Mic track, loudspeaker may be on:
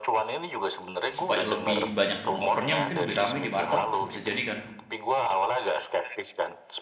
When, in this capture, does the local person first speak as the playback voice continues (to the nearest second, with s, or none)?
1 s